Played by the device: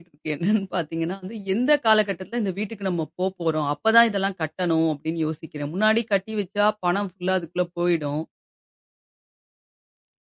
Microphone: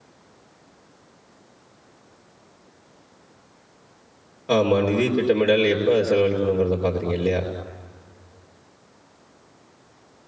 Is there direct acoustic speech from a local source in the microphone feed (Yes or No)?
Yes